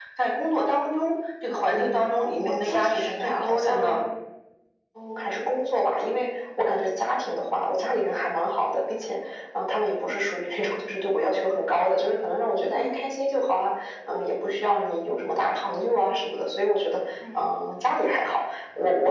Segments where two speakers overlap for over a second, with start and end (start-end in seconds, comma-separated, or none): 2.4-3.8